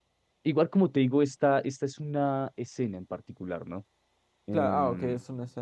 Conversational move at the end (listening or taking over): taking over